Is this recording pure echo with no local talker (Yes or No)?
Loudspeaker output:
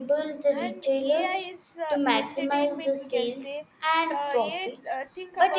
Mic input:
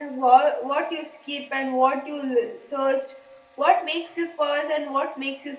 No